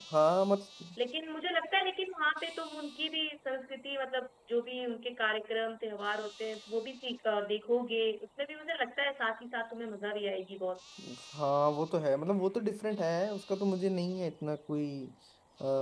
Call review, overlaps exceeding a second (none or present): none